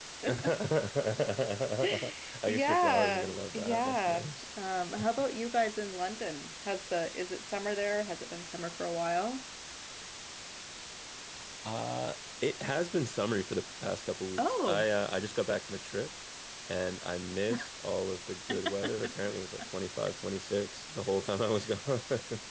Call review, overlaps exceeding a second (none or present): present